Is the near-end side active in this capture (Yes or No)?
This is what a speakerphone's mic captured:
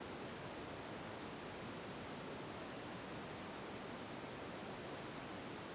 No